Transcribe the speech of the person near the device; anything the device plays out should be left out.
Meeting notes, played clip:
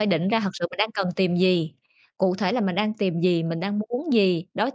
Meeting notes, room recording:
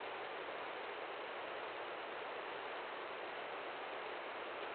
none

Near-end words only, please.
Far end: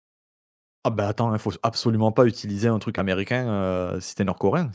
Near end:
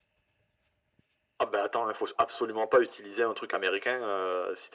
none

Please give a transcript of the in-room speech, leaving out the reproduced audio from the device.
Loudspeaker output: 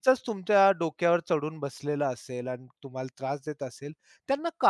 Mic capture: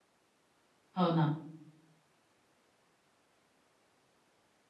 हो ना.

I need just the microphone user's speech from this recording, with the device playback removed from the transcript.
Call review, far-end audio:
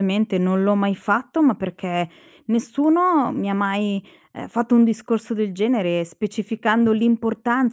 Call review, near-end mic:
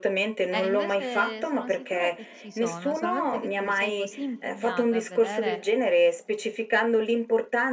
eh, invece sono sicura che ci sono, solamente che tu sei così impegnata a vedere,

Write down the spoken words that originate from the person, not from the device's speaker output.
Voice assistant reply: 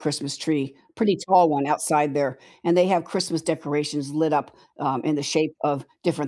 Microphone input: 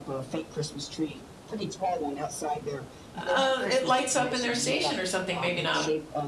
uh, it lights up in their station or something, maybe not.

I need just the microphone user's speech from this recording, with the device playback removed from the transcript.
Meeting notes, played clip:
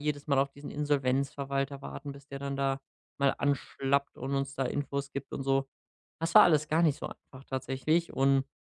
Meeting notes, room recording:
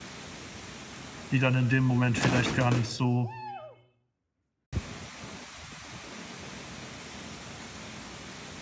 die dann in dem Moment vielleicht gar nicht so,

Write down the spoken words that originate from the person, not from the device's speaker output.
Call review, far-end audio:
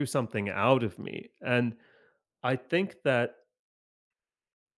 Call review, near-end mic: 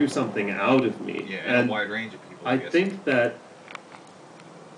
yeah, and a wide range of people, I'm guessing.

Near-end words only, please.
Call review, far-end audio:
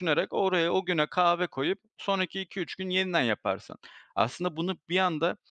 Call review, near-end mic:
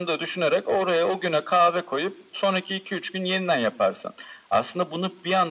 none

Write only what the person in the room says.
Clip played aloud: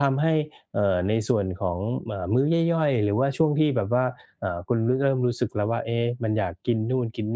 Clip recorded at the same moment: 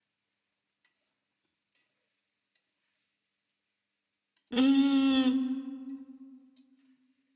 อืม

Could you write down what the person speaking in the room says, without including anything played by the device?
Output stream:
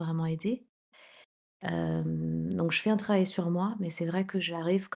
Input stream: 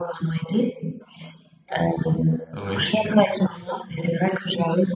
Oui,

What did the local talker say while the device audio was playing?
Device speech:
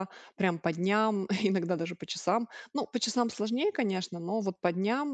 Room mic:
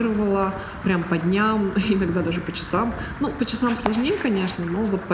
none

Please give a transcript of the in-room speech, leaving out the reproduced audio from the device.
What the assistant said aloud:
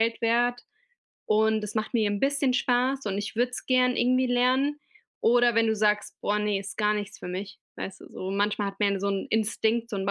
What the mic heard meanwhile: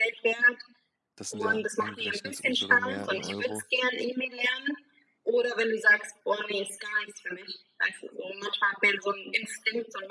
Das sind ja umgerechnet sogar mehr in Euro

